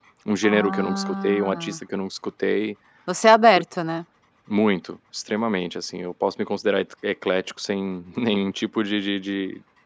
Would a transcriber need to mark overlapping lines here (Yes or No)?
Yes